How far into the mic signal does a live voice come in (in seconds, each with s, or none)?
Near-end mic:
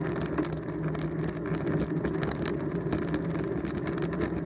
none